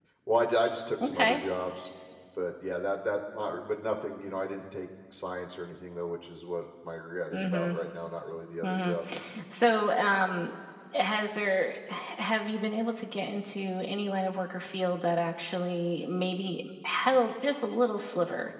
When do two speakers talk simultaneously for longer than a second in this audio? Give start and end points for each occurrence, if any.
none

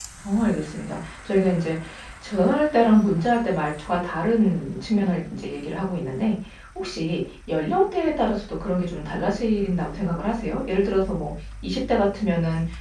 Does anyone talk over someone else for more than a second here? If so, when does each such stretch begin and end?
none

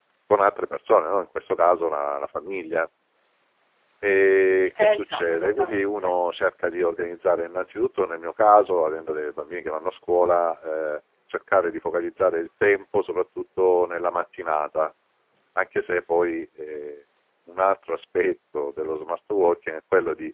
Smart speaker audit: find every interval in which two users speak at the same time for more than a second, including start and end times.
4.8-6.2

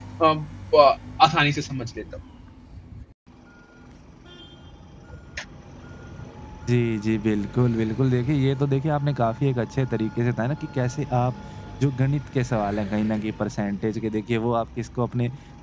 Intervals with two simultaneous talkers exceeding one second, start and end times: none

